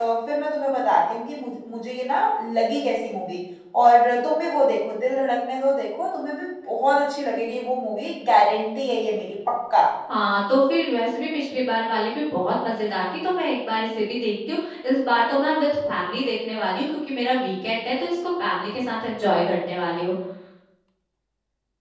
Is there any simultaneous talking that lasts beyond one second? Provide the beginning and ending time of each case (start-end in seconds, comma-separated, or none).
none